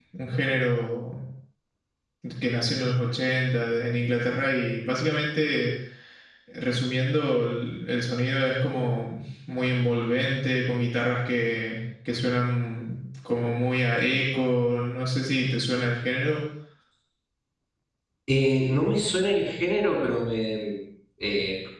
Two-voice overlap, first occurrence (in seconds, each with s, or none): none